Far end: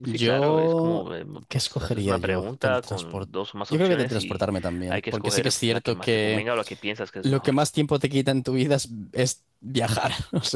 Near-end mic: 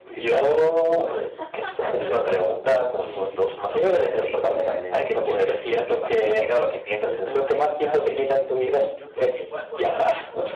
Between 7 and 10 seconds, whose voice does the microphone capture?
both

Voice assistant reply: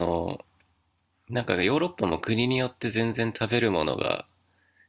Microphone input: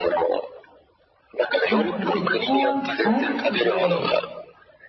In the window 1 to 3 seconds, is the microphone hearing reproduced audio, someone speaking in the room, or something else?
both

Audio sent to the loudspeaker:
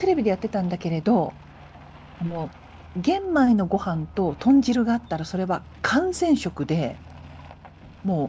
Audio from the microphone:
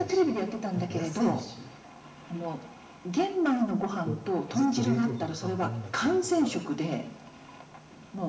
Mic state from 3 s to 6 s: both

